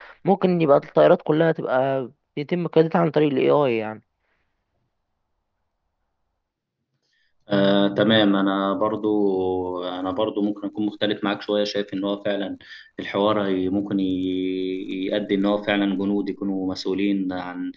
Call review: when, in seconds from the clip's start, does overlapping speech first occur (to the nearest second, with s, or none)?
none